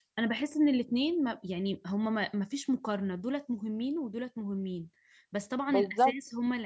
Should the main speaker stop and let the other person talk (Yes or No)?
No